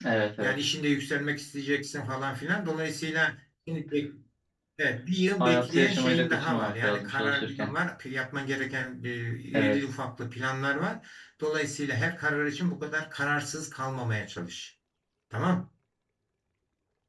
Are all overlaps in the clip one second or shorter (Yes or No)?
No